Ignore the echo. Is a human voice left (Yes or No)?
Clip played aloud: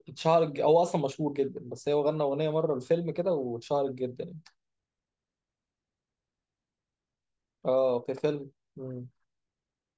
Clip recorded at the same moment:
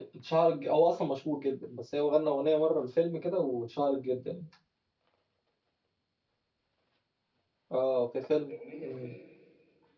Yes